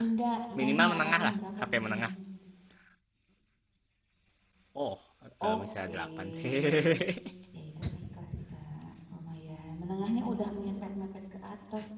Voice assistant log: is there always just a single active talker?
No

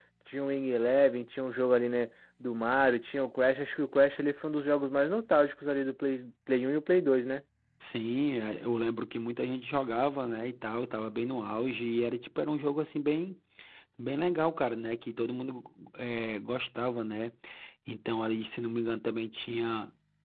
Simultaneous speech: No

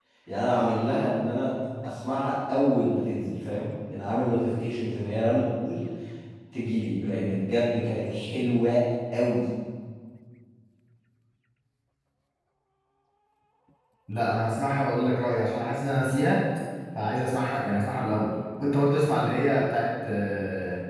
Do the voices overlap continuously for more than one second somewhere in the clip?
No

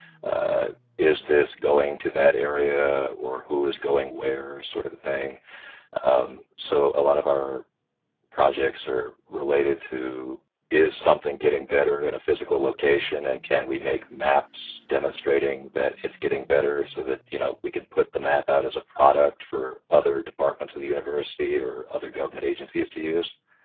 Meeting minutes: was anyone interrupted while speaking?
No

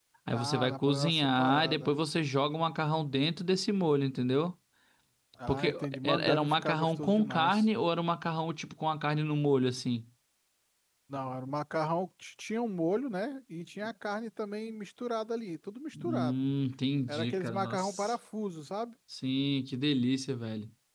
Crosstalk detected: Yes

